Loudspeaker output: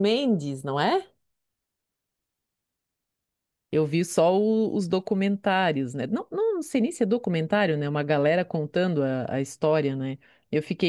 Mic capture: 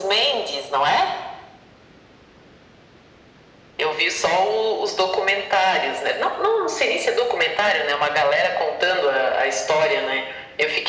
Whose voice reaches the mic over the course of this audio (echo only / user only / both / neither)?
echo only